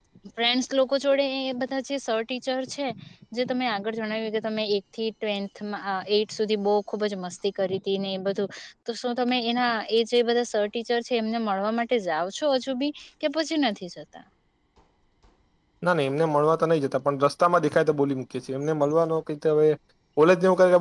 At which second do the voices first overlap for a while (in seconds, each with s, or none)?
none